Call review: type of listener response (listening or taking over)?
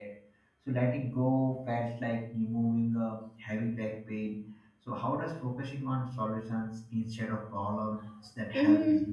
taking over